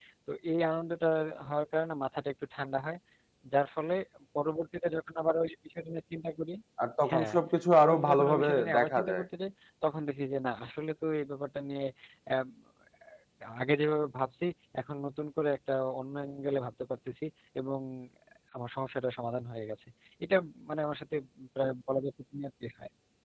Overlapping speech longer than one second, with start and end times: 7.8-9.2

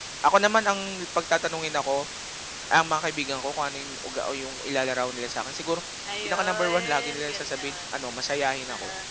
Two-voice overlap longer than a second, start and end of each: 6.2-7.8

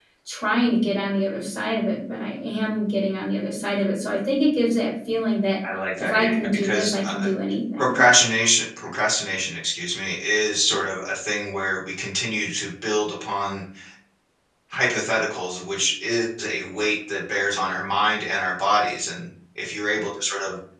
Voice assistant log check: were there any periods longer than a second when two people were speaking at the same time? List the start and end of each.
6.0-7.3

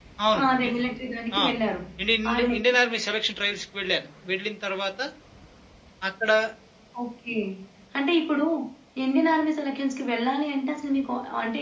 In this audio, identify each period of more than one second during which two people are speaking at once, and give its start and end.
none

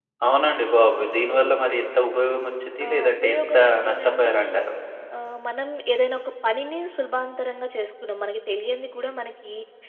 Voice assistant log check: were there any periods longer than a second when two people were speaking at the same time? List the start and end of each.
2.8-4.4

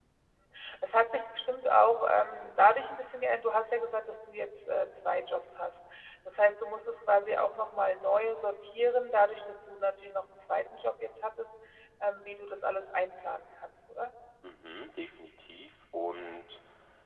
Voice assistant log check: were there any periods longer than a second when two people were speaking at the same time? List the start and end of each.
none

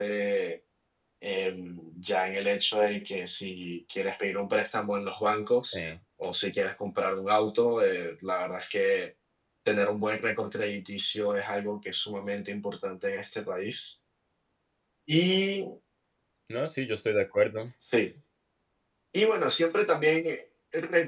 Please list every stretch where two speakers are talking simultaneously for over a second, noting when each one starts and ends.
none

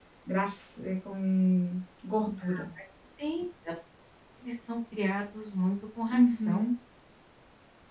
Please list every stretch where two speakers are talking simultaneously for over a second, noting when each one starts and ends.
none

